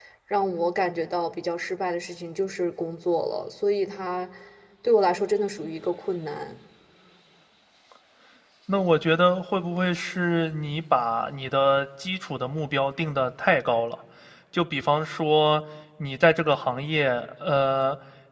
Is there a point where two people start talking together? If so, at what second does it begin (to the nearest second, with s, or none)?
none